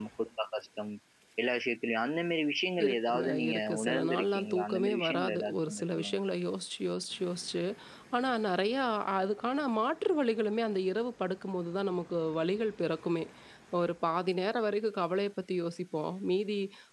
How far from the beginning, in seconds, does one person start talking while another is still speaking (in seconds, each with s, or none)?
2.8 s